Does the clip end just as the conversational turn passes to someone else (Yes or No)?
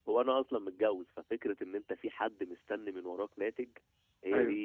No